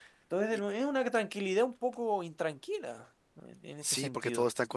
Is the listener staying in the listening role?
No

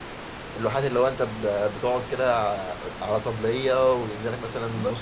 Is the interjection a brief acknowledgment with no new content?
No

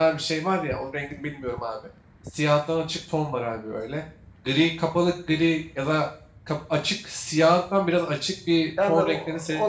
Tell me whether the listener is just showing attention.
No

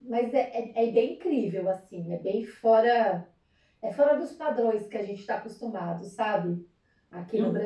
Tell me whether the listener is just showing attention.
No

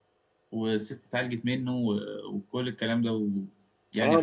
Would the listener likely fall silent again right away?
No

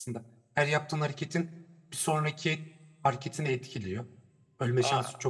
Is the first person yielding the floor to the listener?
No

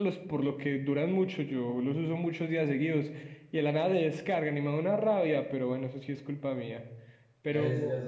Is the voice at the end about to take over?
Yes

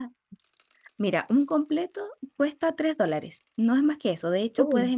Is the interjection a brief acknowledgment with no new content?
Yes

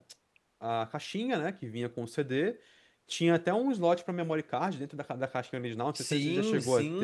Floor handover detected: Yes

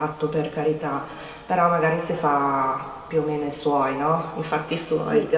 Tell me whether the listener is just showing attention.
Yes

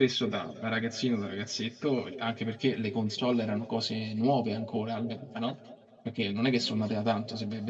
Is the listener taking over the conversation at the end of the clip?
No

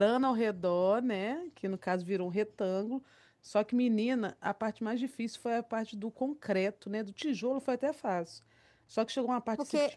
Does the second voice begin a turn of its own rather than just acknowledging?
No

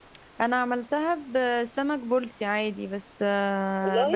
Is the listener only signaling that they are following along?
Yes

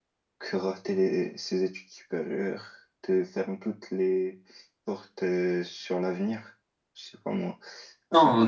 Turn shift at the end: Yes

